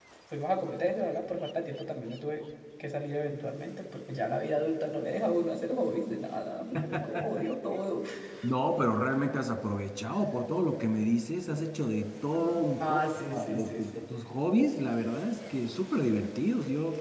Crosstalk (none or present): present